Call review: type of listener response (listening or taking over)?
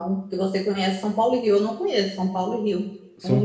taking over